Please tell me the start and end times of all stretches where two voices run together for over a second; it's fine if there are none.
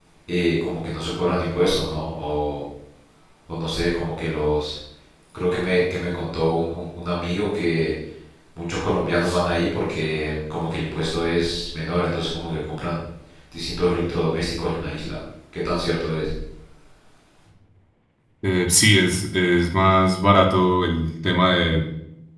none

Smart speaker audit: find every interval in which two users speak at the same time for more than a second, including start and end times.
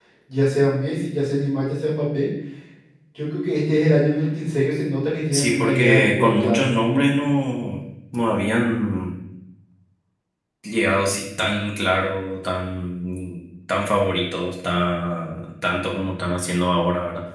5.3-6.7

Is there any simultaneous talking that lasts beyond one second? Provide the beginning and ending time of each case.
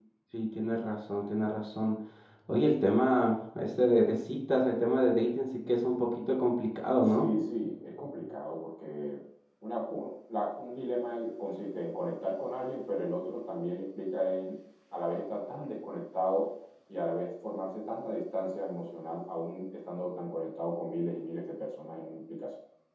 none

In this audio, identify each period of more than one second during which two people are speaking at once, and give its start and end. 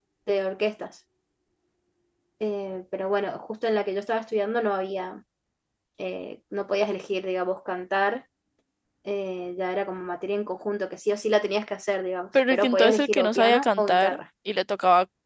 12.5-14.2

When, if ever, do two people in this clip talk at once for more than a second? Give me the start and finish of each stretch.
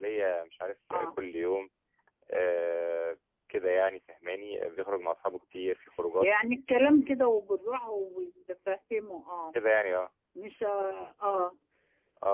none

